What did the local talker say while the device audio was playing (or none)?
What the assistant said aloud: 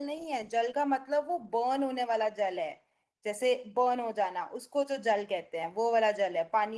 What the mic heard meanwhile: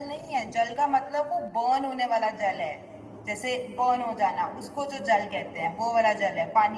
none